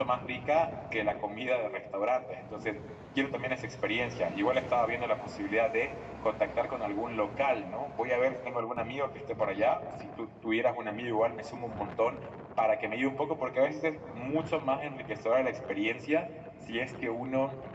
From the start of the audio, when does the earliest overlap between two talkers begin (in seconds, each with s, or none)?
none